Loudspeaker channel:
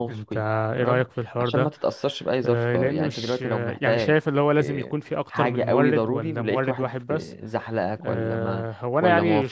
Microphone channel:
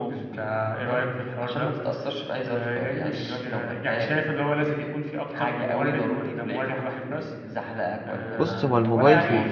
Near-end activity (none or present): present